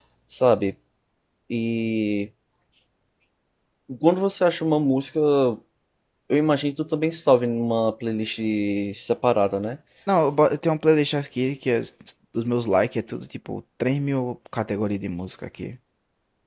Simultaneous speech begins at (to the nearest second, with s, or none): none